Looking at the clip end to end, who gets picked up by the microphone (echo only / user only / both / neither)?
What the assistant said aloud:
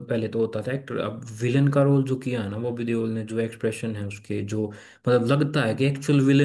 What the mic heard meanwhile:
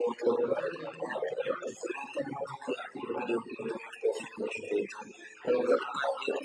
both